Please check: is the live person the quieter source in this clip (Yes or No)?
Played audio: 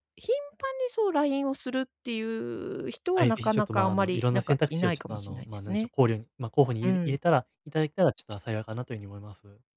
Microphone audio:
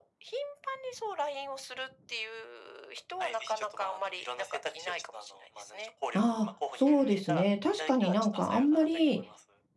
No